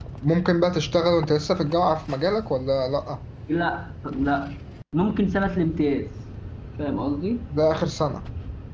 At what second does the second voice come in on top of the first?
none

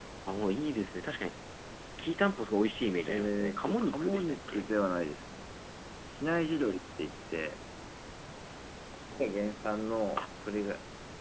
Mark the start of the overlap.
3 s

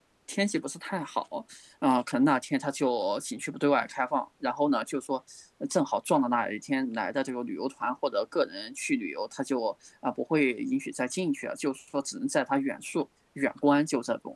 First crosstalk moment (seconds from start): none

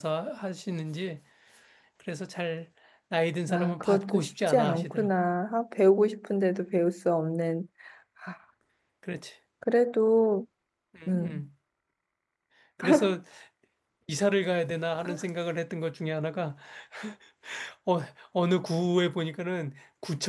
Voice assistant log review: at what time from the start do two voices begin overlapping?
4 s

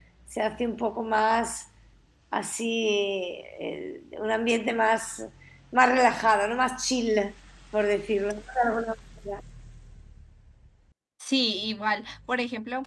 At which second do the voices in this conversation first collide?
none

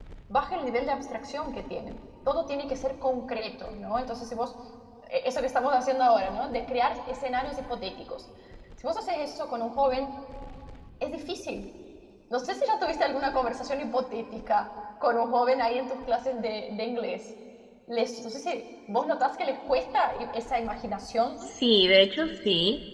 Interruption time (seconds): none

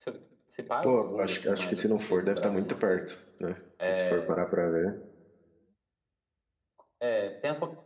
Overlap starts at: 1 s

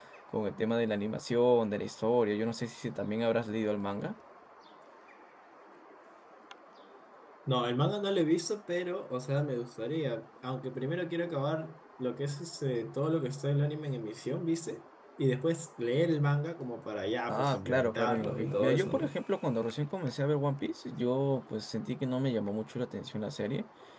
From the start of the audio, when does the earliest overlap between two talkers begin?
17 s

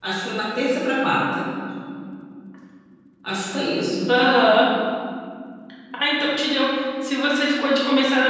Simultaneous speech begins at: none

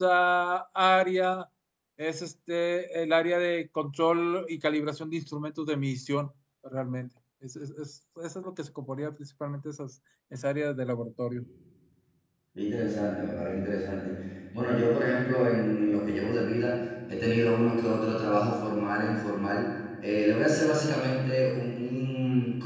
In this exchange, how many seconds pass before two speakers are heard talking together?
none

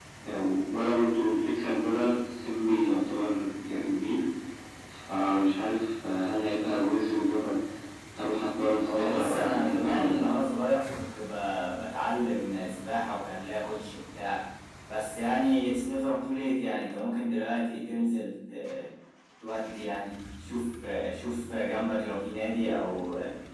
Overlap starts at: 9 s

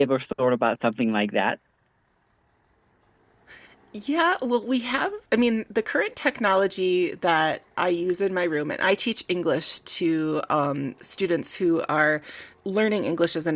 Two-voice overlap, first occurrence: none

